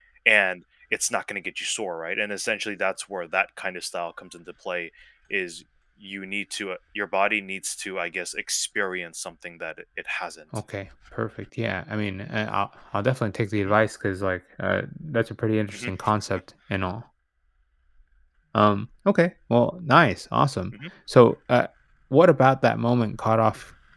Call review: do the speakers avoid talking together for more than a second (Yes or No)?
Yes